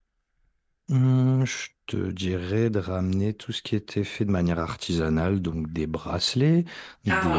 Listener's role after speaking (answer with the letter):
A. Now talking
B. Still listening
B